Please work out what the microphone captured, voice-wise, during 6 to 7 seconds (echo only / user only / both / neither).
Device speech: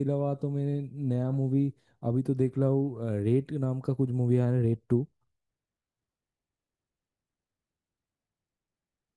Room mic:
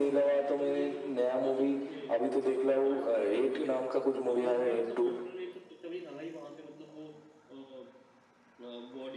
user only